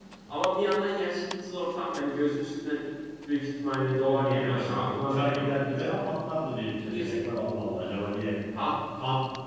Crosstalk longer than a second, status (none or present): present